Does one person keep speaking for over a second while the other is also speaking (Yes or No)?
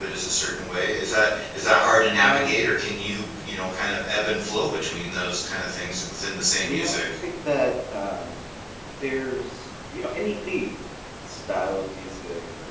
No